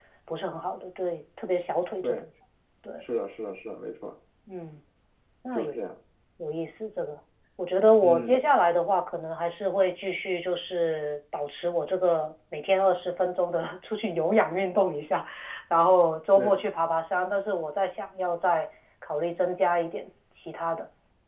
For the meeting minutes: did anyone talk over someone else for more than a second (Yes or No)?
No